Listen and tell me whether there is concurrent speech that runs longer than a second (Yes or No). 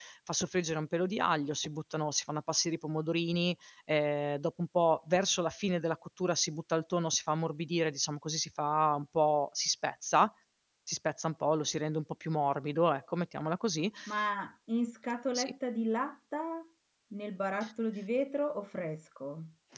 No